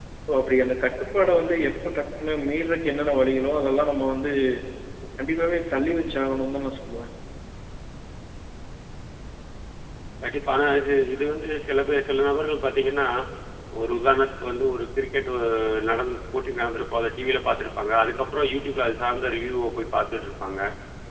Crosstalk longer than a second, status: none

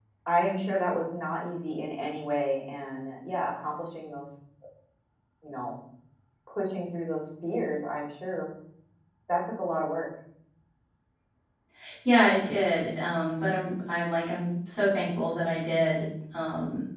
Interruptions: none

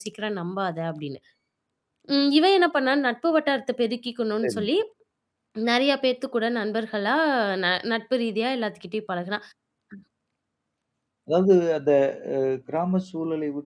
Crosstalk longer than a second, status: none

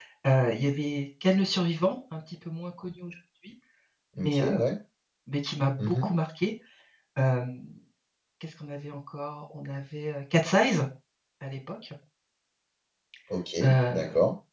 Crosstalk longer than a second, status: none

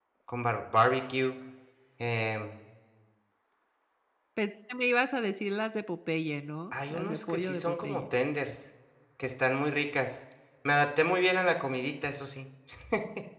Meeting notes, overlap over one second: present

